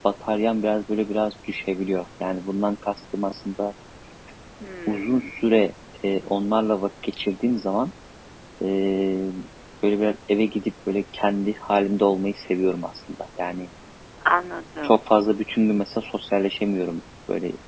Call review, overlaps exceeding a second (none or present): none